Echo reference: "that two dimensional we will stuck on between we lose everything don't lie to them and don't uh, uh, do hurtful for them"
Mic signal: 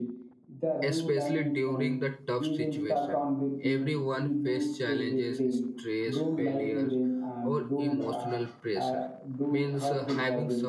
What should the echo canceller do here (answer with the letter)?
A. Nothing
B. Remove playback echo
B